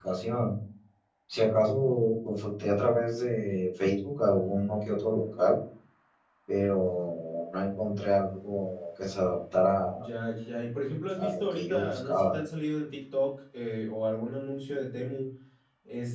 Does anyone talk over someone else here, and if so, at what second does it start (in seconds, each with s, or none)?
11.2 s